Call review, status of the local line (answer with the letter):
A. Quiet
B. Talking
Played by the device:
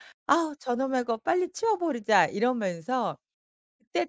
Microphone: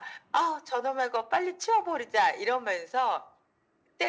A